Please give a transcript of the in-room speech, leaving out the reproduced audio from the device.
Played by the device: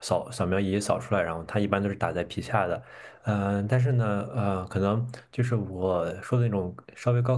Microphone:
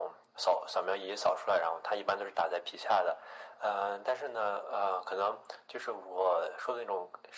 none

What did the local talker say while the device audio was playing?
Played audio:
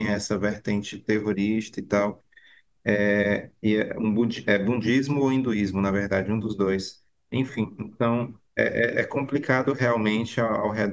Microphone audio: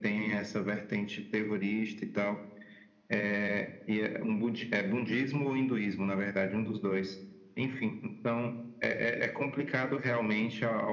none

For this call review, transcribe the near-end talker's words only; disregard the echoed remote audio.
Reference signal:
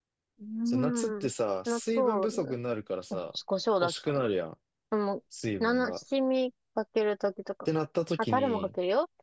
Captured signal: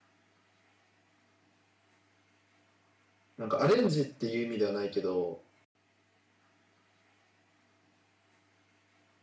なんかアレンジっていう意味ではないけど、

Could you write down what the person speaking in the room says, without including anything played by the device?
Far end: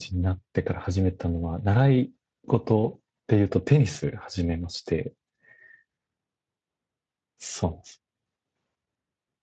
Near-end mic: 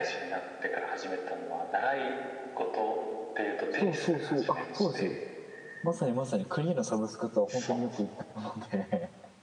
そうそうそう。あ、そうですよ。まさにまさにクリーのサブスクとは本当によく言ったので

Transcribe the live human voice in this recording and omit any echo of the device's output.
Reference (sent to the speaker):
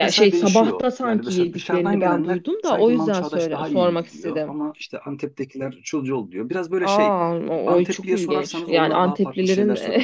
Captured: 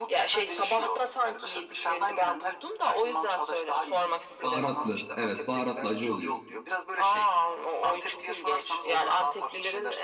Baharatlı. Evet baharatlı acı oluyor.

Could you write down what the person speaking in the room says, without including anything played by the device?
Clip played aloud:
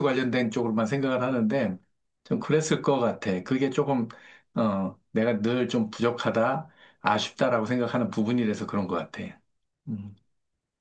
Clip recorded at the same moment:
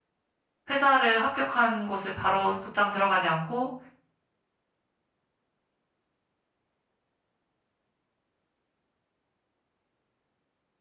회사를 합격한 곳을 바로 곧장 들어가지 않고

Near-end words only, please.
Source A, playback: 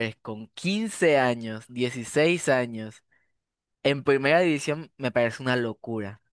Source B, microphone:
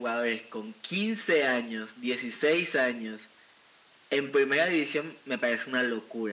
none

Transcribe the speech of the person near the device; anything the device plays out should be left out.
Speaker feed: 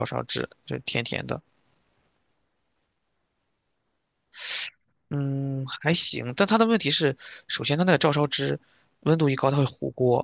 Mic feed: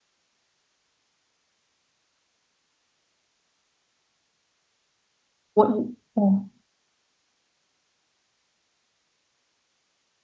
我，哦

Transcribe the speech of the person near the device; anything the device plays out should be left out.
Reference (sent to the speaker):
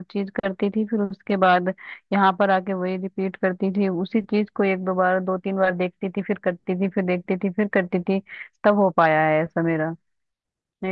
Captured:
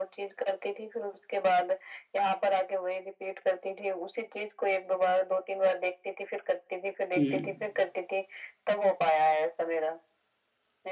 हम्म

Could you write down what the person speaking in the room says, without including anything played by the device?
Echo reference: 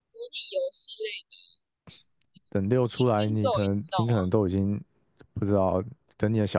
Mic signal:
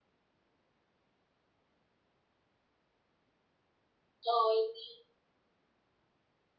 呃嗯

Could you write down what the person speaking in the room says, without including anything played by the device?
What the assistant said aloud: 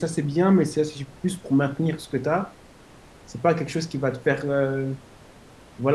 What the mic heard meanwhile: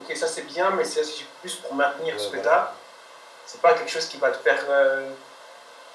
ouais, voilà.

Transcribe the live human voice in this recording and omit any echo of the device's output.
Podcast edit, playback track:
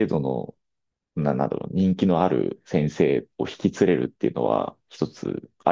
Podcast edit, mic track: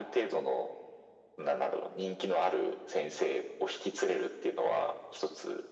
none

